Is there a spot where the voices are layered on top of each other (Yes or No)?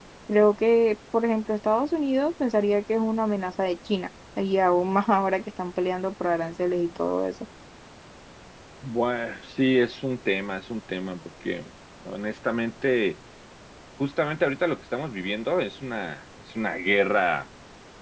No